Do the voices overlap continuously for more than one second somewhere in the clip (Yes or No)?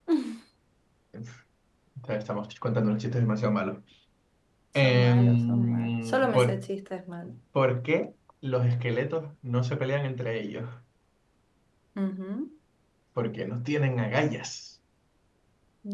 Yes